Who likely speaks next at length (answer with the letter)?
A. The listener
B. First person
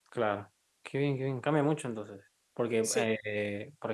B